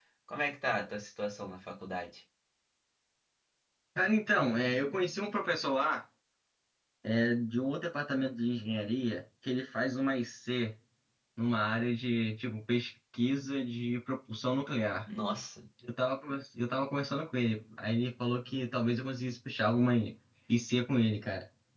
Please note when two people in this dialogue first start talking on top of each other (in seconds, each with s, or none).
none